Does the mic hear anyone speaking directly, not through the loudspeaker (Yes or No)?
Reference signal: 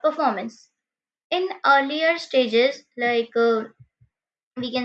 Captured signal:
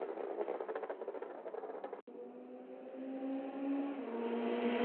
No